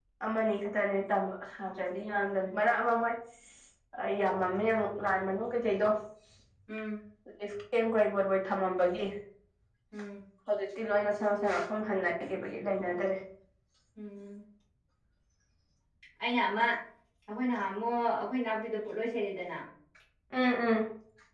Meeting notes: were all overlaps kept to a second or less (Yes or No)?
Yes